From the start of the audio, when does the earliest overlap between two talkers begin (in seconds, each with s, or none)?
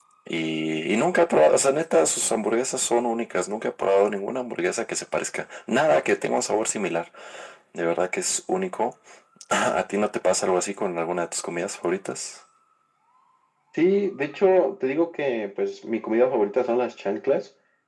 none